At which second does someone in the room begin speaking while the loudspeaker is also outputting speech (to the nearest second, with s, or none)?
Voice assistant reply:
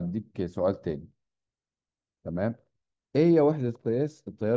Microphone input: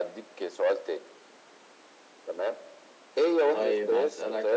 3 s